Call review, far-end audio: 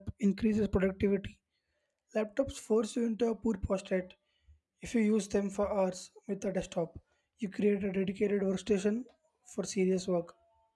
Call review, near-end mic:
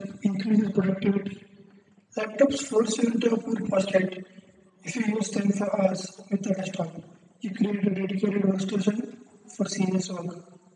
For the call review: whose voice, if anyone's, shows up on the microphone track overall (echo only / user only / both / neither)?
echo only